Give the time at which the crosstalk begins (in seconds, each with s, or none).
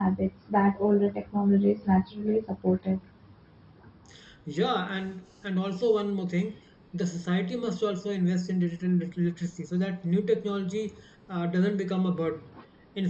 none